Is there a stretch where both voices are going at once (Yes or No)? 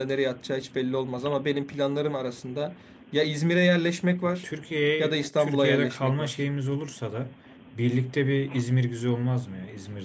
Yes